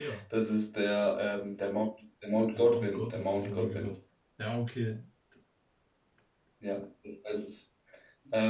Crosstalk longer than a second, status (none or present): present